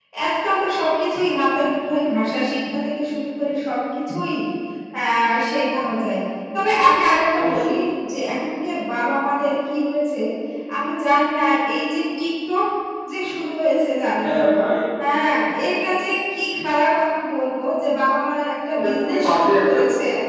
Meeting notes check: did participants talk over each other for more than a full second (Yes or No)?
Yes